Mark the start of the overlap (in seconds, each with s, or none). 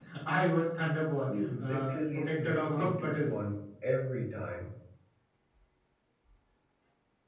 1.3 s